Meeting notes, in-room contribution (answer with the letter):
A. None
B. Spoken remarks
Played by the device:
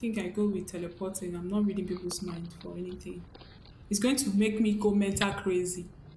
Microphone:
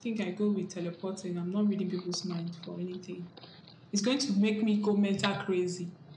A